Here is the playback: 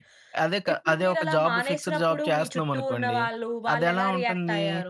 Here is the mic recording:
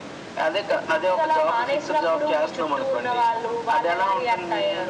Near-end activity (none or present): none